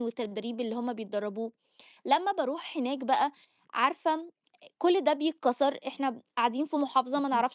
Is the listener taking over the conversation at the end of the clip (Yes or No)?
No